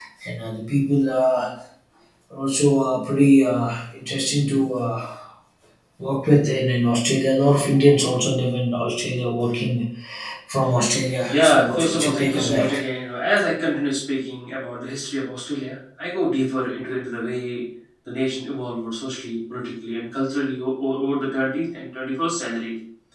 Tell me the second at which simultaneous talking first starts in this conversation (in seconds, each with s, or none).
11.3 s